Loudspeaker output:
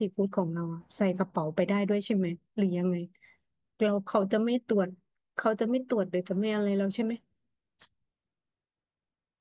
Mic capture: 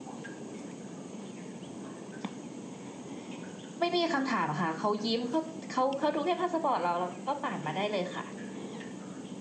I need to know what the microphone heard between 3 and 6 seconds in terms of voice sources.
user only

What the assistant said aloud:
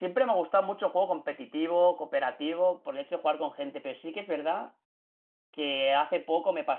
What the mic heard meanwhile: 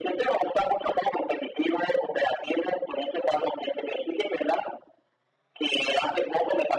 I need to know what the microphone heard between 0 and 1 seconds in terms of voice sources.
echo only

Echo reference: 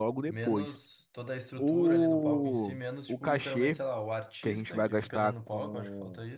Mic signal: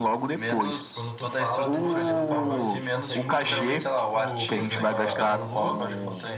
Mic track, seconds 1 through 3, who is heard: both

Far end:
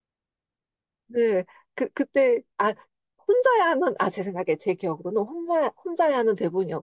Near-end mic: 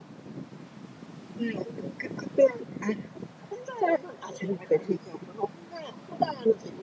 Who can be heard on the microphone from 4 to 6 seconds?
echo only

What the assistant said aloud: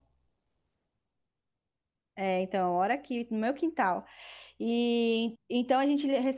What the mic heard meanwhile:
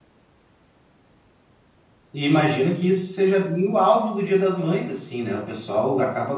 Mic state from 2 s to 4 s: user only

